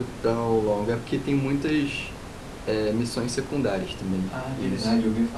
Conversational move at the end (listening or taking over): taking over